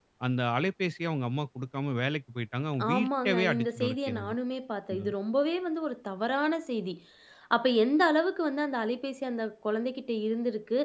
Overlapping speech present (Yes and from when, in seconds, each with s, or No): Yes, from 2.8 s